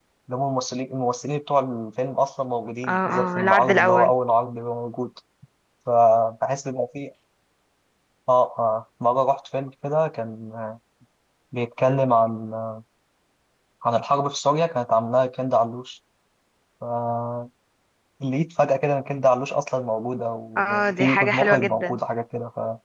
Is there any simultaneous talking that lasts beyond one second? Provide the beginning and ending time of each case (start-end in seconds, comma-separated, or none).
2.9-4.1, 20.6-22.0